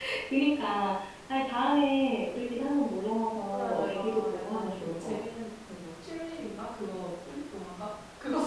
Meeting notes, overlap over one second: present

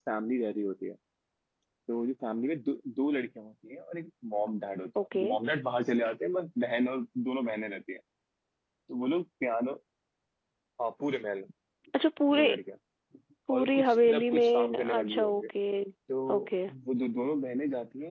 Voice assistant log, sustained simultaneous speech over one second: present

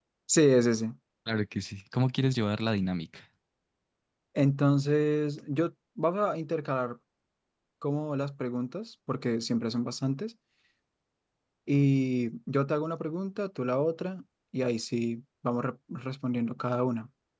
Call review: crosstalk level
none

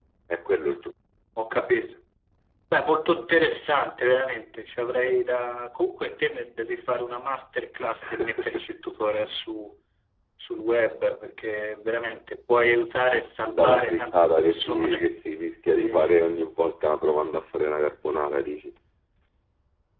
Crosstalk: present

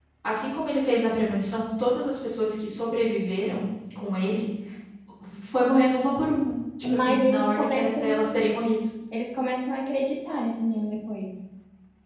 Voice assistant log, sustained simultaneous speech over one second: present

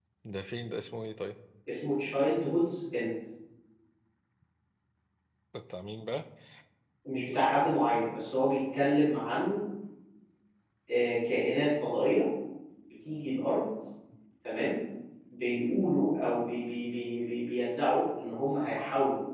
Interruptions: none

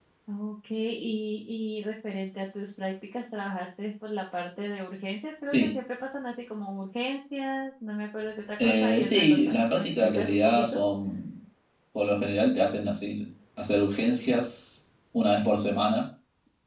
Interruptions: present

